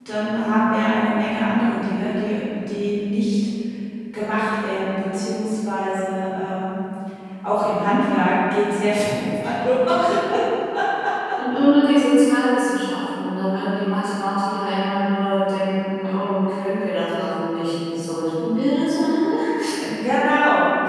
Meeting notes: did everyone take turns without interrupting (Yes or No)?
Yes